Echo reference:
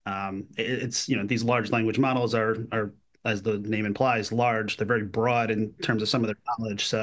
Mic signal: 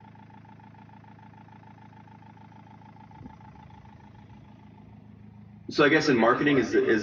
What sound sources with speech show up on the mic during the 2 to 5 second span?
neither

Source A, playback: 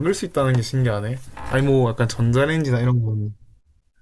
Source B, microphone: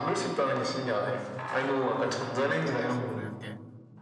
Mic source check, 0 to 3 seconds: both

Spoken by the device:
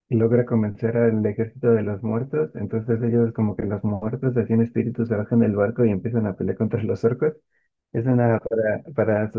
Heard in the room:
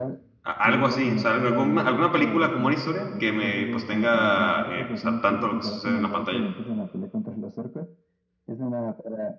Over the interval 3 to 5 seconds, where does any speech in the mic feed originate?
both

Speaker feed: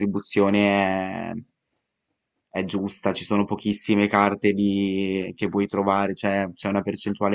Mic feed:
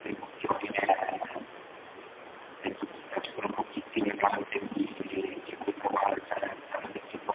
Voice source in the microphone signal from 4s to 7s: echo only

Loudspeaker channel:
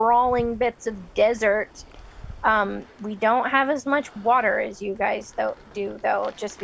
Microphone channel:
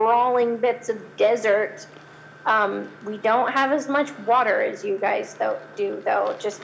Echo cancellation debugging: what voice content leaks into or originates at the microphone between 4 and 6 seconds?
echo only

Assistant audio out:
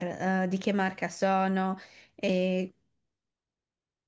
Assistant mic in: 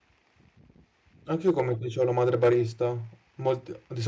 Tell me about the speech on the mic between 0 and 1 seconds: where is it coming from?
neither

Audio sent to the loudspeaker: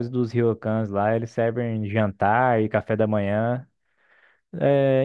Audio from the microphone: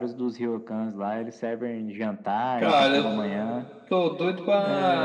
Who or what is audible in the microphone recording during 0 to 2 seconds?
echo only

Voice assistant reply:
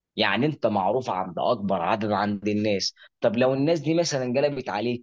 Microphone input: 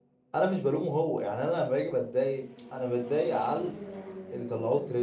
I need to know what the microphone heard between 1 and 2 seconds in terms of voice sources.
user only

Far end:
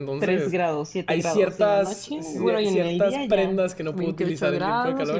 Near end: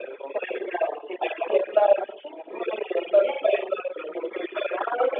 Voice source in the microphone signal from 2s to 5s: echo only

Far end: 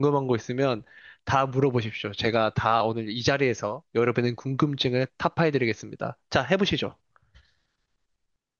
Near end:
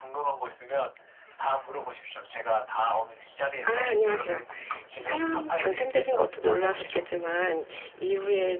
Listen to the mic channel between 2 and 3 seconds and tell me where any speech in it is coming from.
echo only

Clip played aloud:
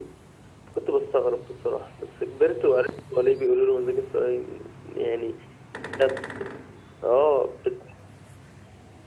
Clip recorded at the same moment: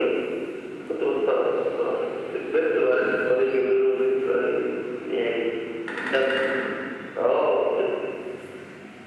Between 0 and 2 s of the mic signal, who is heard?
echo only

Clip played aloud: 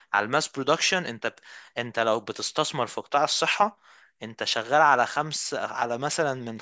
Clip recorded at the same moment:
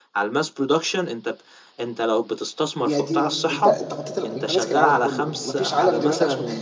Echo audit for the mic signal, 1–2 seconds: echo only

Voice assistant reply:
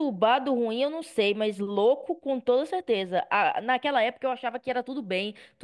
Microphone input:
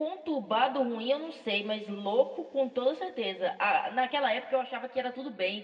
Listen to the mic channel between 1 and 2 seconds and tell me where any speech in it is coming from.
echo only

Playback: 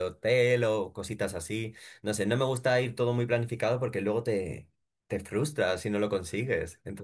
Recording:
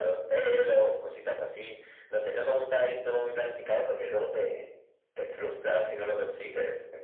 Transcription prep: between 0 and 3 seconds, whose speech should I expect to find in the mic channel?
echo only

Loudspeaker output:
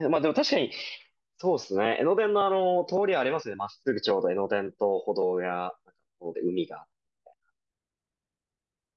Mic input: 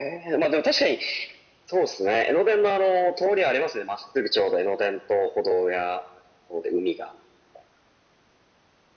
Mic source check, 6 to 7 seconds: echo only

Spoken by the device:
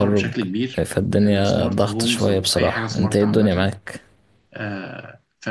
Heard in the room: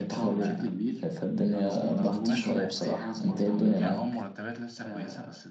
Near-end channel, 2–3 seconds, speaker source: both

